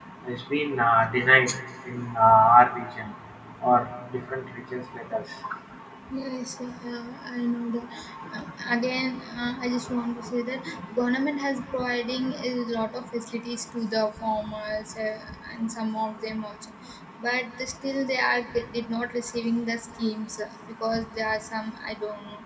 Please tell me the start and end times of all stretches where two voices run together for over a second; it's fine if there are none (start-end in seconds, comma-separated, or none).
none